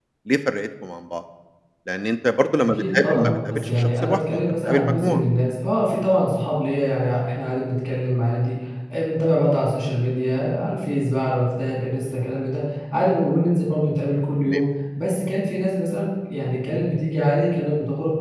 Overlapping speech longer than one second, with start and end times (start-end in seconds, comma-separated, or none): 2.6-5.2